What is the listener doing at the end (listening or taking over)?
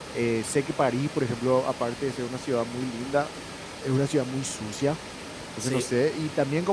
listening